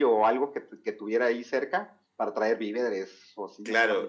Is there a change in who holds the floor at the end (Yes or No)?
Yes